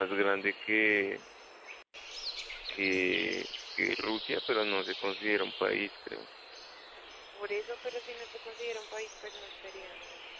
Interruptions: none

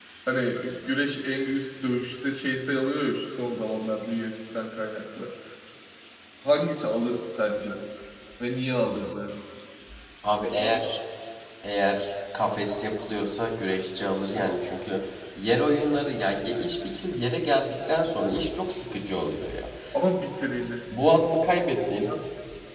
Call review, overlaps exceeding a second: none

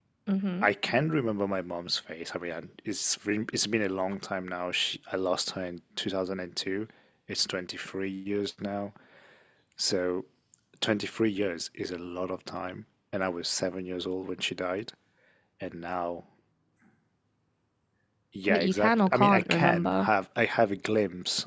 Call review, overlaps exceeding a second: present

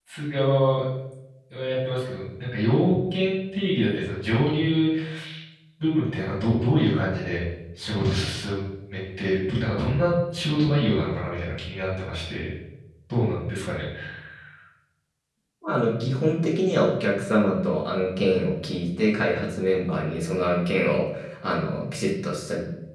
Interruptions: none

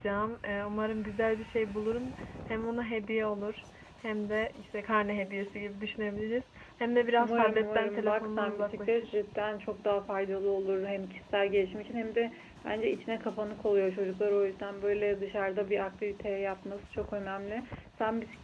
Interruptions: present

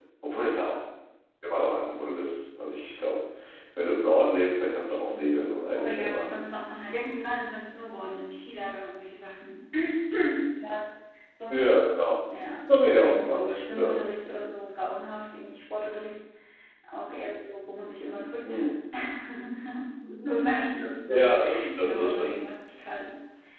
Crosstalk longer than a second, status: present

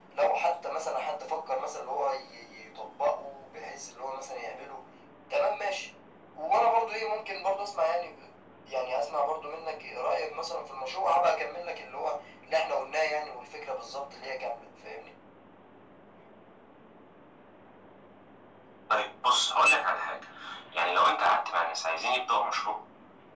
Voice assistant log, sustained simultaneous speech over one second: none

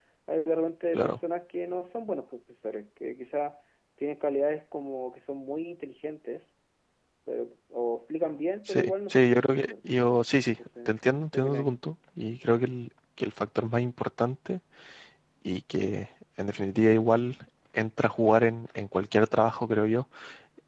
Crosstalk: present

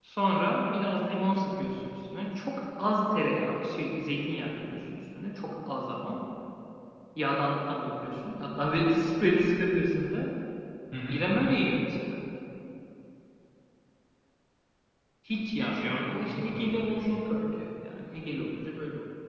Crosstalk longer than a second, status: present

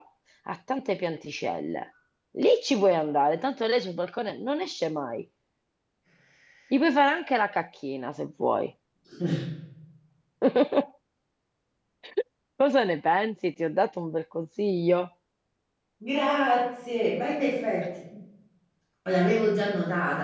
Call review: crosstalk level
none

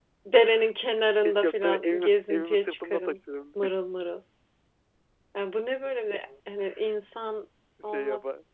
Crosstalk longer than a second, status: present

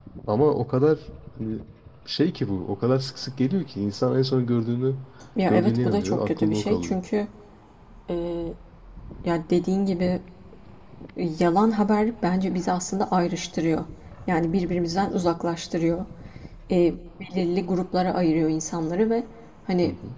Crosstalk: present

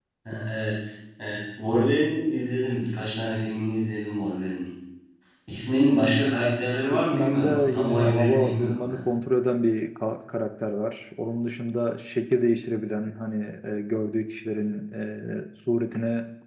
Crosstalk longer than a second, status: present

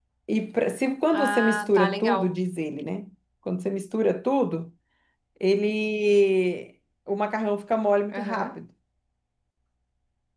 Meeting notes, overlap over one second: present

